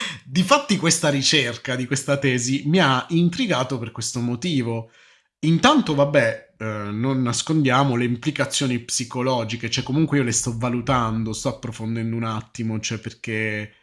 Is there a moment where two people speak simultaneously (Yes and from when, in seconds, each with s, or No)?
No